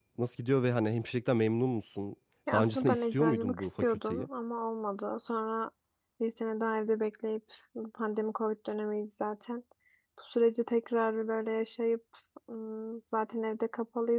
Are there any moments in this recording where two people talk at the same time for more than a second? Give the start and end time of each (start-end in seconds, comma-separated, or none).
2.5-4.3